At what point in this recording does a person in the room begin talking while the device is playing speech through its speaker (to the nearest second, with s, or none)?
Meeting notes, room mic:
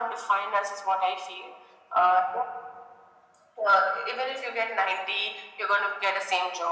none